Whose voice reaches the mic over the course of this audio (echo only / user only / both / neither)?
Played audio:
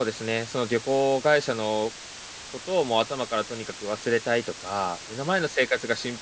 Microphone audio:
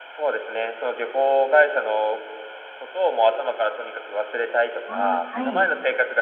both